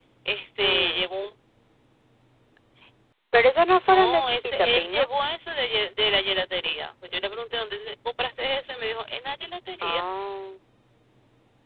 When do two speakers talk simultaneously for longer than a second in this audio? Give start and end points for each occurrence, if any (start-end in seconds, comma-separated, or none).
3.9-5.1